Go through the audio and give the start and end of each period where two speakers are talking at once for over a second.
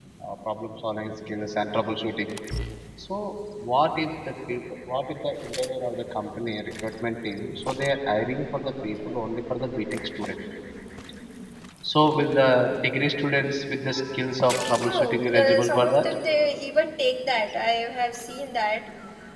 14.8-16.0

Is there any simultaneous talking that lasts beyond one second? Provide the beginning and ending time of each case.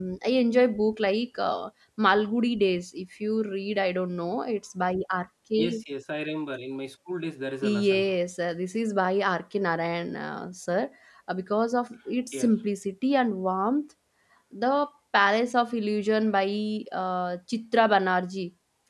none

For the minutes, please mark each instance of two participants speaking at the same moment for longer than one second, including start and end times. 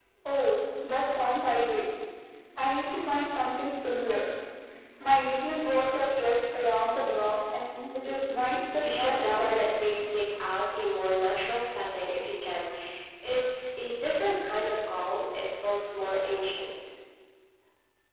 8.8-10.1

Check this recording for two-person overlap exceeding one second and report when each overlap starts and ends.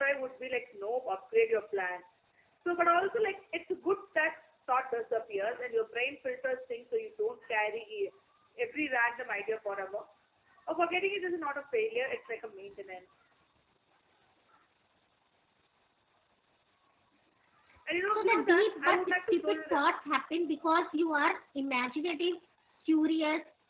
18.2-19.8

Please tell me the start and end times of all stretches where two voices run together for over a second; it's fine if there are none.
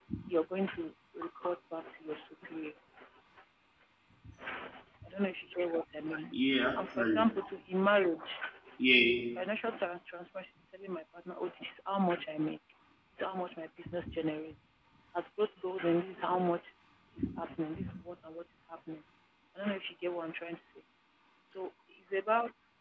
none

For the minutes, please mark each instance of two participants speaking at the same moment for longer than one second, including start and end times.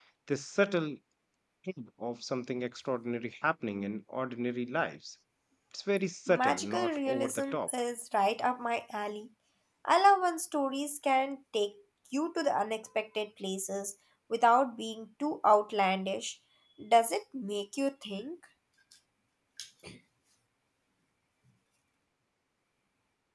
6.3-7.7

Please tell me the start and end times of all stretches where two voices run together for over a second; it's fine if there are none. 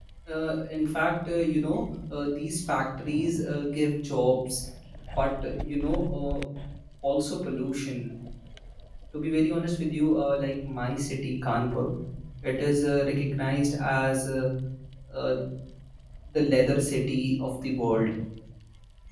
none

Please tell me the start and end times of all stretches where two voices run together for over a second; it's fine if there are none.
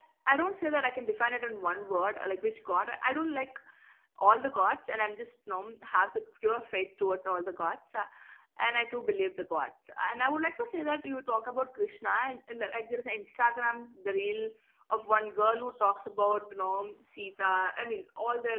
none

